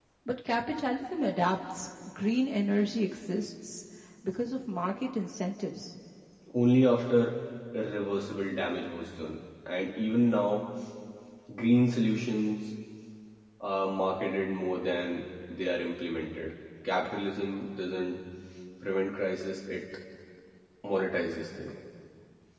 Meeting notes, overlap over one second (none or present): none